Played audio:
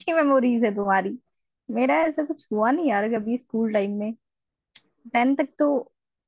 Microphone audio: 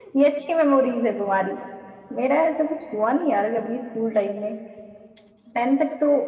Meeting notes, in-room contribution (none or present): none